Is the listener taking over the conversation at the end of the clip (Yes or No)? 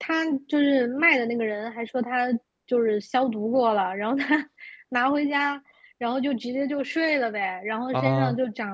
No